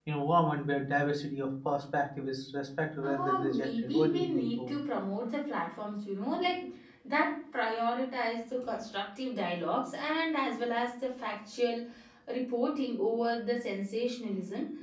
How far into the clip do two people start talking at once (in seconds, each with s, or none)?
3.0 s